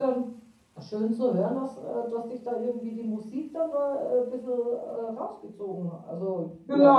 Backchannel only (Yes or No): No